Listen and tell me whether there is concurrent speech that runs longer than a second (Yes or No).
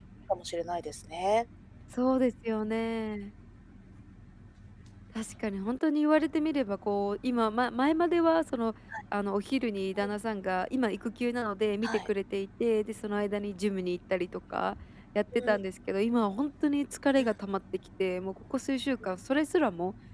No